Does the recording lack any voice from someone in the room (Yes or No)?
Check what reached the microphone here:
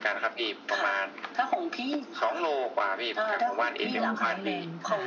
No